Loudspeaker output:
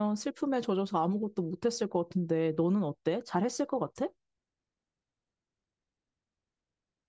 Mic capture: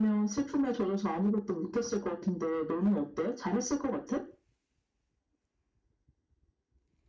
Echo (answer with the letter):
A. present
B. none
A